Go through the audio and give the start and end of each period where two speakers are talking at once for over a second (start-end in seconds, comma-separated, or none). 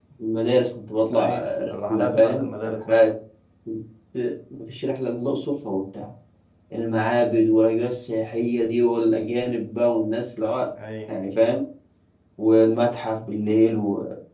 1.1-3.1